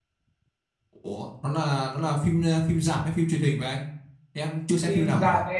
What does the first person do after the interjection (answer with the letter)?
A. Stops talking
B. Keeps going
A